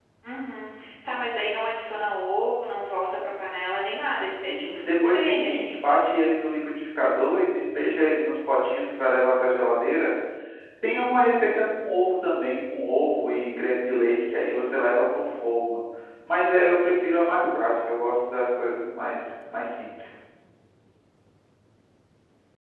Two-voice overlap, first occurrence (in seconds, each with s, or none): 4.5 s